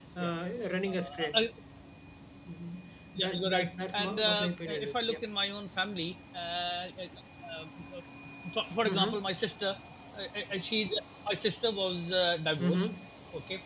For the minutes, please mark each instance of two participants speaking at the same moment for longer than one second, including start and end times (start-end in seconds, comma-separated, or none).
3.2-5.2